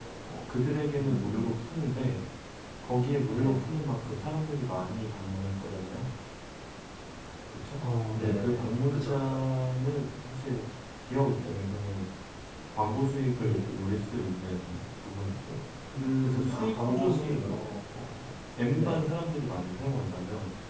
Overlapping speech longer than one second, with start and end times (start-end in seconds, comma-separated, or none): 8.1-9.4, 16.2-17.6